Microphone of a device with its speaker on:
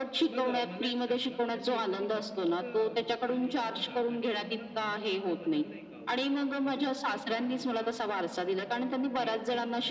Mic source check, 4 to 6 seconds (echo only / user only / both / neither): both